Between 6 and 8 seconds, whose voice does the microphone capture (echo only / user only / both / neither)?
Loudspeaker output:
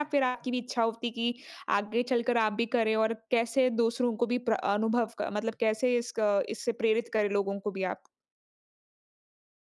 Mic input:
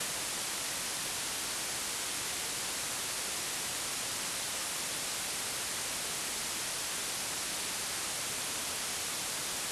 neither